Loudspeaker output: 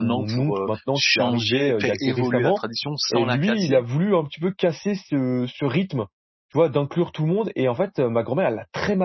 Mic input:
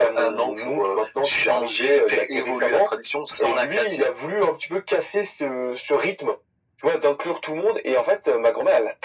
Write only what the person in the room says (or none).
none